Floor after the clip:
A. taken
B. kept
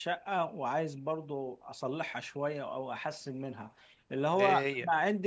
B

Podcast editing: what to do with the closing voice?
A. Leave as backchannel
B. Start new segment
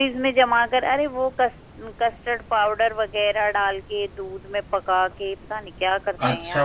B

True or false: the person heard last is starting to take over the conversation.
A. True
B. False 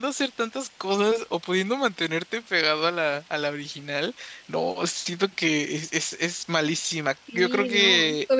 A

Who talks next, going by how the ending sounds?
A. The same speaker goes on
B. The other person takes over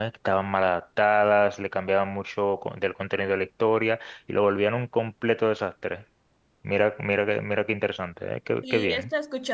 B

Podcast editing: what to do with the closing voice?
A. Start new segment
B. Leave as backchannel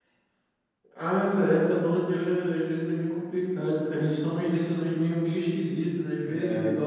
B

